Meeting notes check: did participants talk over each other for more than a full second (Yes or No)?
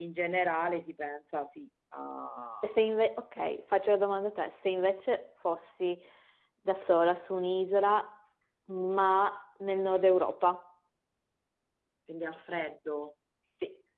No